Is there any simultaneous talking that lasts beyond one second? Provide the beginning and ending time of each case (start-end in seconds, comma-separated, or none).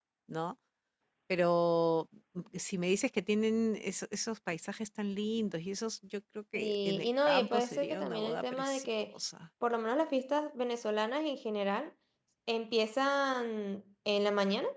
6.5-9.0